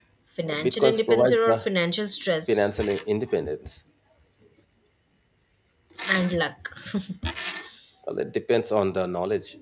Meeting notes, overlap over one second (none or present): present